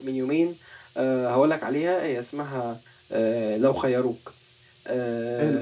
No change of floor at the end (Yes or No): Yes